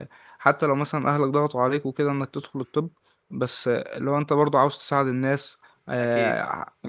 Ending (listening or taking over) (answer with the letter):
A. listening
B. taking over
A